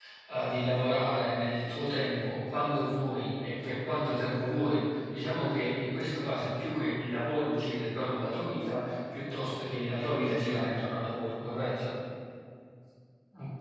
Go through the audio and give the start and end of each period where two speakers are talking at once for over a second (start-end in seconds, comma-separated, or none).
none